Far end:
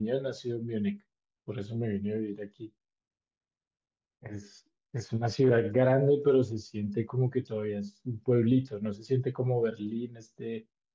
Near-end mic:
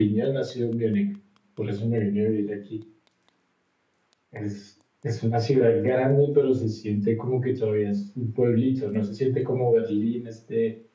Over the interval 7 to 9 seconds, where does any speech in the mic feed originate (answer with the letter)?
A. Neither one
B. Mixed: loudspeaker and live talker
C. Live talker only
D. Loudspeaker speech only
D